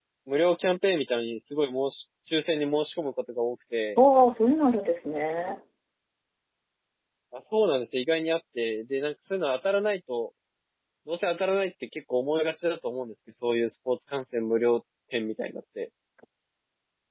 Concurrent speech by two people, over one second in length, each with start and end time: none

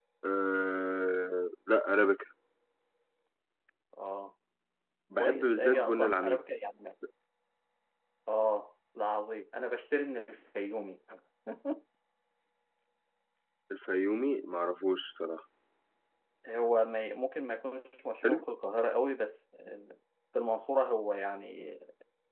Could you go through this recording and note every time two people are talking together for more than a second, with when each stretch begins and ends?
5.2-6.4

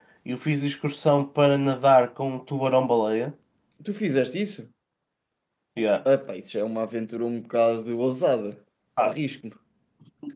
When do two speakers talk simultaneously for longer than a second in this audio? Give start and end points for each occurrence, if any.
none

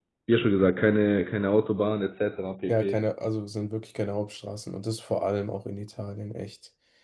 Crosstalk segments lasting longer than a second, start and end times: none

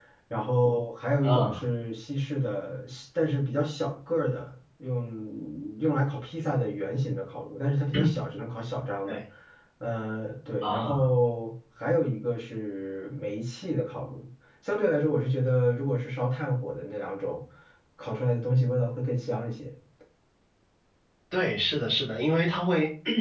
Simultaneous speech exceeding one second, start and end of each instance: none

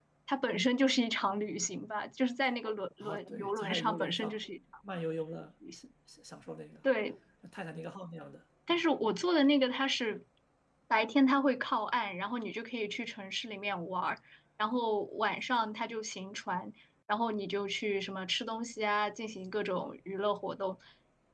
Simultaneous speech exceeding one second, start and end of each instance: 3.0-4.4

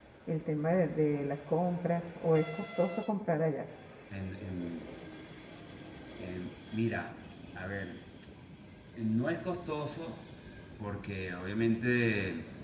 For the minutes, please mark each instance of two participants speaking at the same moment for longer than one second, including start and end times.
none

